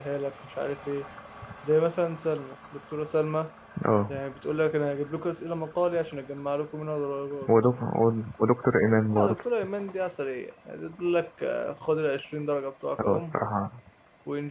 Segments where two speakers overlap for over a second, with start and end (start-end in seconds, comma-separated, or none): none